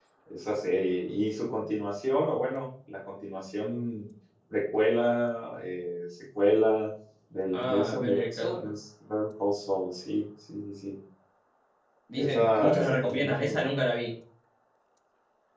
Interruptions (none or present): present